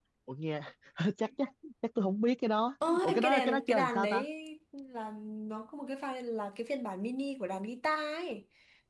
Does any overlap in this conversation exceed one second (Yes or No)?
Yes